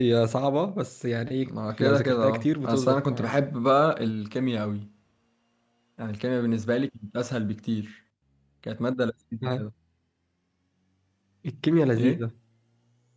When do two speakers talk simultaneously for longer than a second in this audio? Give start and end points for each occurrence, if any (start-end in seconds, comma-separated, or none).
1.4-3.3